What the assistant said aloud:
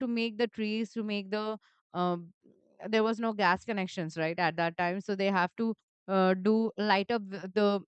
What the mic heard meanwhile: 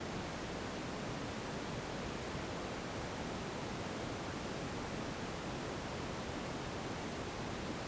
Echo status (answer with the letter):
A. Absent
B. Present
A